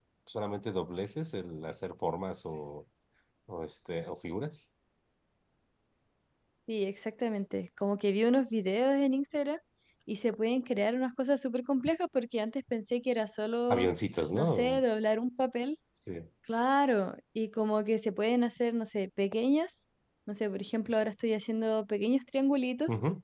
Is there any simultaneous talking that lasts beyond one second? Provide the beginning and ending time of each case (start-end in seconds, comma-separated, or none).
none